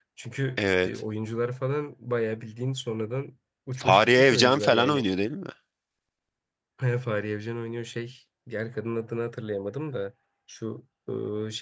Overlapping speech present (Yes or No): Yes